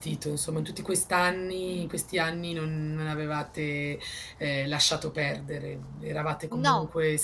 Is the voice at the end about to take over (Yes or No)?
No